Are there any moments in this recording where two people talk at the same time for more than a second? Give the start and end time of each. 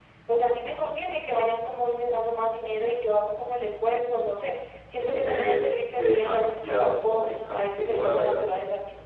5.3-8.4

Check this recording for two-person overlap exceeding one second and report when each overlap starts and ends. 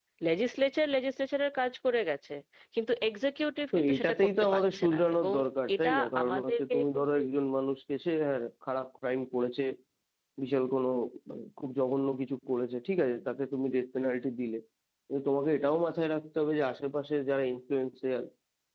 3.7-5.3, 5.8-7.2

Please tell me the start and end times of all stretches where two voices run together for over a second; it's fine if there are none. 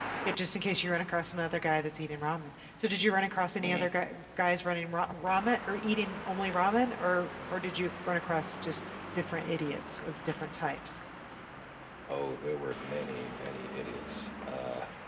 none

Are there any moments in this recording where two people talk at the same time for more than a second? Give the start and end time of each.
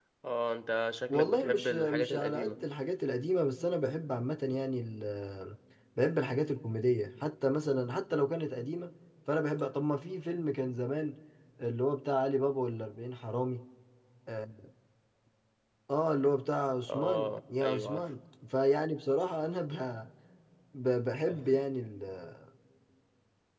1.1-2.6, 16.9-18.1

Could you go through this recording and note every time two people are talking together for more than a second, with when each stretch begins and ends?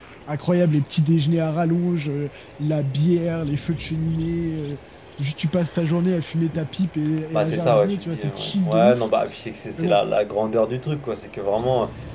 7.3-9.0

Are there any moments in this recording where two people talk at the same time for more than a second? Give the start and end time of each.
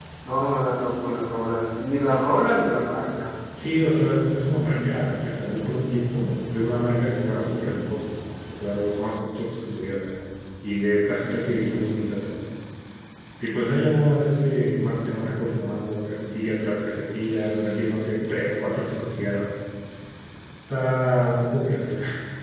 none

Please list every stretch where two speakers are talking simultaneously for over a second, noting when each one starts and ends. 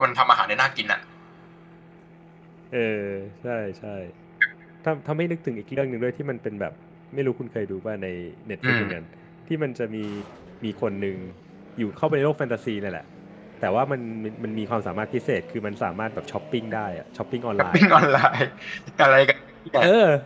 none

